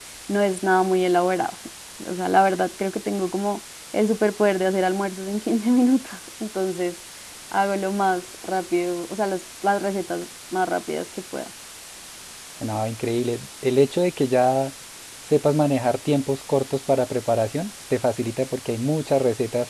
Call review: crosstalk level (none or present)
none